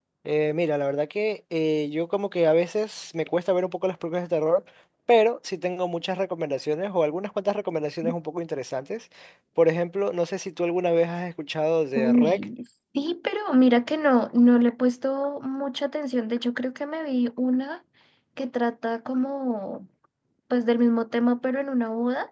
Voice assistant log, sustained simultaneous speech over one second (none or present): none